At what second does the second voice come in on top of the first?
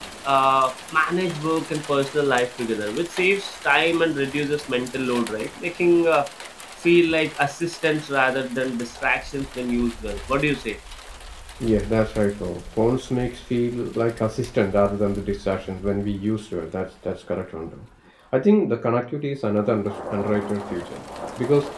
none

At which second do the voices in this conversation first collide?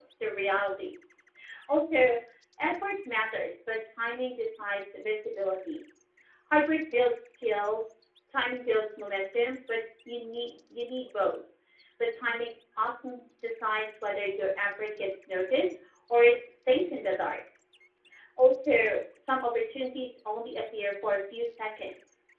none

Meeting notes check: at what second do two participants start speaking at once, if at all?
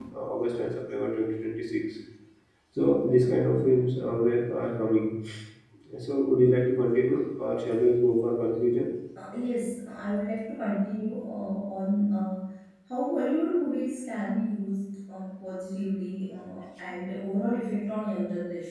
none

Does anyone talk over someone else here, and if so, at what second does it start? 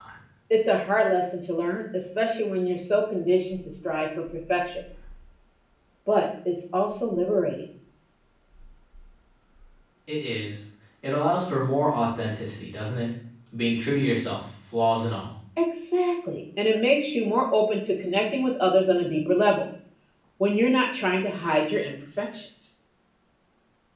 none

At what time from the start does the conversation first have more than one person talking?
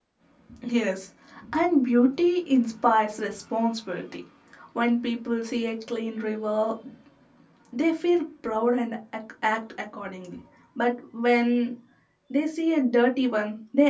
none

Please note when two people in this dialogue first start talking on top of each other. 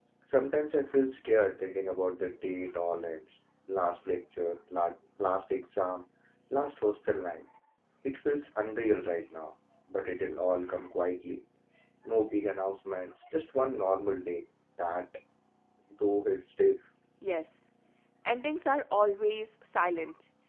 none

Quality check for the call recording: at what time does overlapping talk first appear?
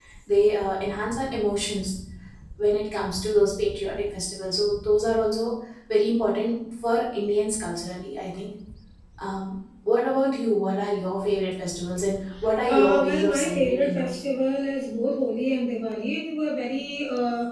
12.7 s

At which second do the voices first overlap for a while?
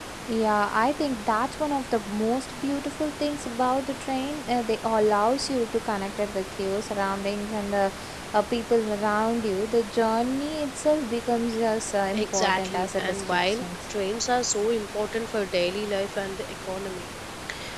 12.1 s

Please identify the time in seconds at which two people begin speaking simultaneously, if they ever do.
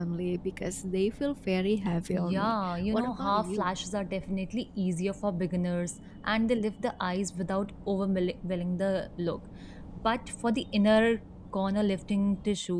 2.1 s

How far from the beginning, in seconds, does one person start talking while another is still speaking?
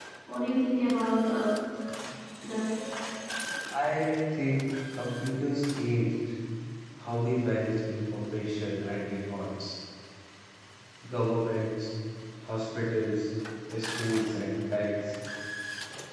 none

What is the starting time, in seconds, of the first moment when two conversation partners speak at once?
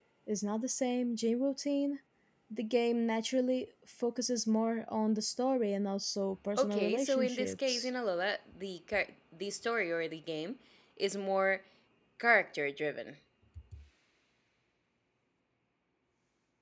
6.6 s

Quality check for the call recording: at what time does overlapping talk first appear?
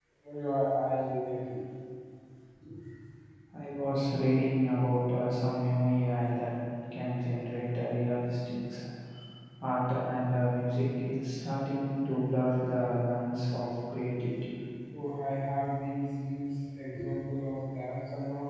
none

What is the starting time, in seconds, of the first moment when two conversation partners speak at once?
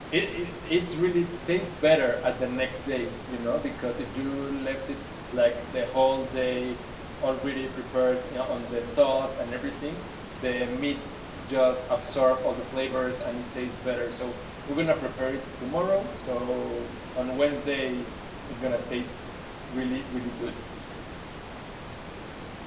none

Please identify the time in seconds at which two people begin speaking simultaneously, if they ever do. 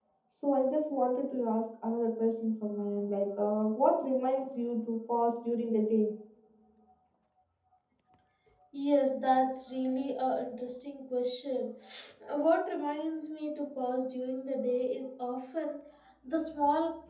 none

